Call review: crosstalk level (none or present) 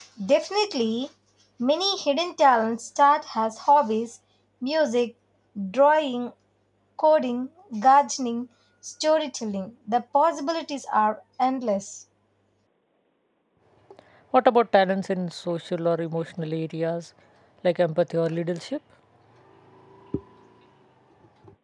none